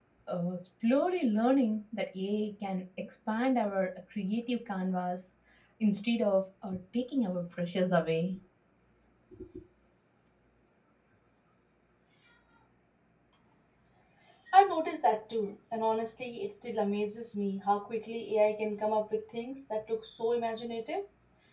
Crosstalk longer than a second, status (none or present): none